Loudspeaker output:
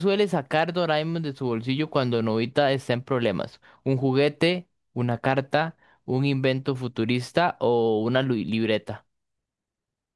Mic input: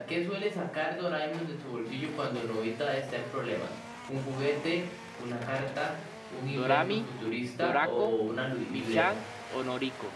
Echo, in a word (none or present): present